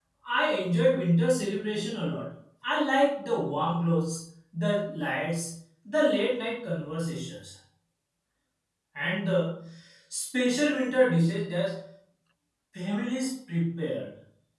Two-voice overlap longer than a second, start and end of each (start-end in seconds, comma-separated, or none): none